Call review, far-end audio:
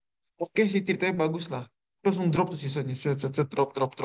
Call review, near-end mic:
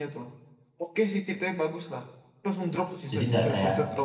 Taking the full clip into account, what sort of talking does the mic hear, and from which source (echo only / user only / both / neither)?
both